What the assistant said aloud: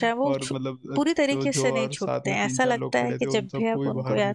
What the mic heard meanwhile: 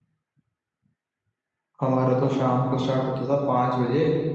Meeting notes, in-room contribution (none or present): present